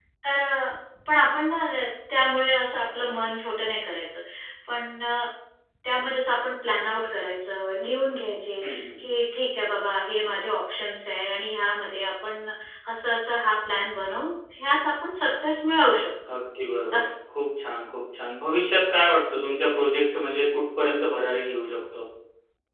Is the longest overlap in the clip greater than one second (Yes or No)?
No